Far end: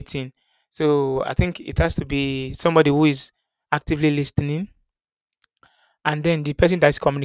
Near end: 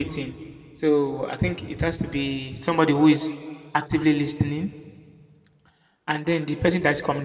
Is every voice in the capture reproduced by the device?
Yes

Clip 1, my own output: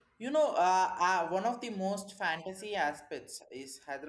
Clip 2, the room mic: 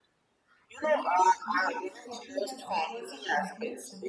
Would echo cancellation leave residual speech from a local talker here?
Yes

